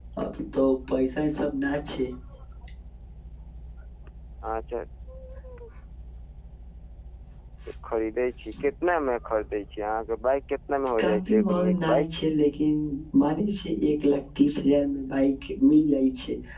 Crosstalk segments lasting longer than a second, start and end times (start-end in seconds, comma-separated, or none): 11.0-12.3